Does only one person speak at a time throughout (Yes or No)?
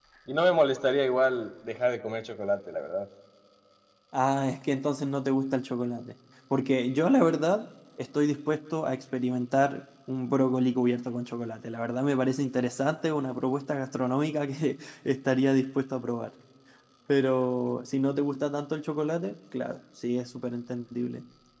Yes